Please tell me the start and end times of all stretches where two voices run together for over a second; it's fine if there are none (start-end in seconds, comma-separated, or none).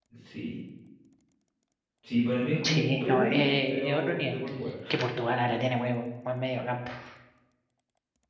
2.6-4.3